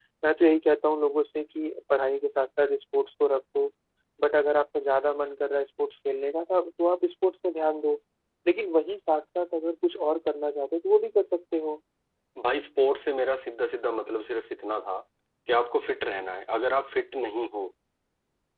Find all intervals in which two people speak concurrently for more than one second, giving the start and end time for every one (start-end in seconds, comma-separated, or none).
none